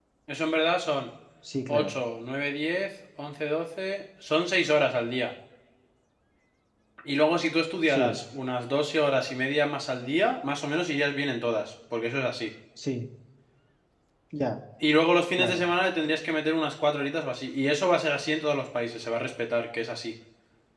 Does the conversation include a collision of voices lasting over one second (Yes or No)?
No